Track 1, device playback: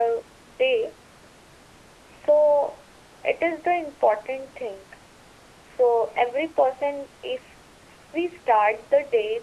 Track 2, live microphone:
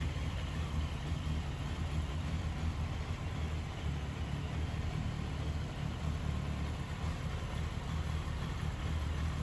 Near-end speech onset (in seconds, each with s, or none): none